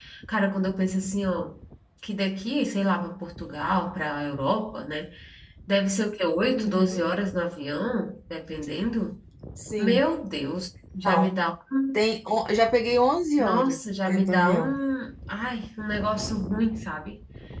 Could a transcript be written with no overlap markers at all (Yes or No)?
No